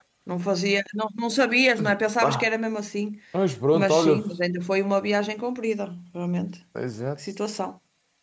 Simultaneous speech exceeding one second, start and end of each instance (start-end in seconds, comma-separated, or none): none